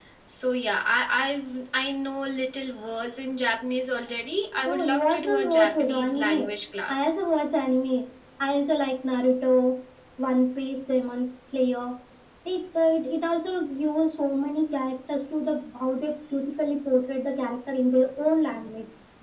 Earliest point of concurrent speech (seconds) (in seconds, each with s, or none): 4.6 s